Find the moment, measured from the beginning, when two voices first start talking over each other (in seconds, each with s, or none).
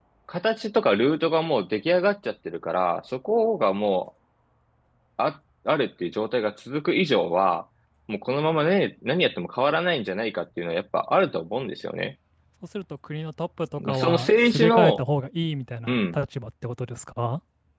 13.8 s